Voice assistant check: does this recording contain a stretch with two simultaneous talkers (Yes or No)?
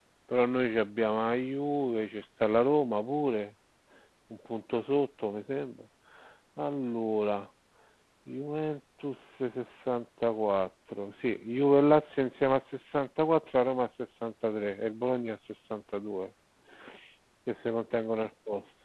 No